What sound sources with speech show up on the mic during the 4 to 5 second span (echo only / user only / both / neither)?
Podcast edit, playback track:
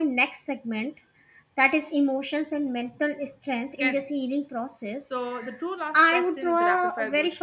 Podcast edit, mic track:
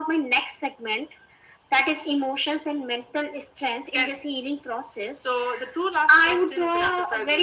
echo only